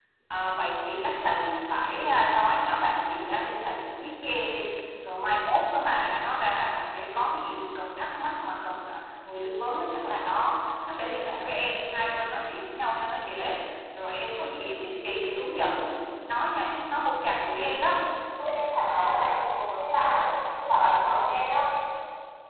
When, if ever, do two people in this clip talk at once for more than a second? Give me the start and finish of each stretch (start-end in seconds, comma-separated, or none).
none